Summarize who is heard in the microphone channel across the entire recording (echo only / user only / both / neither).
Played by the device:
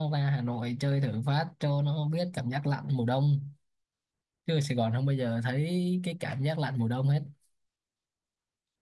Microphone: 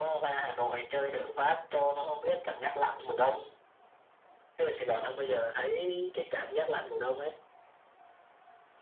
echo only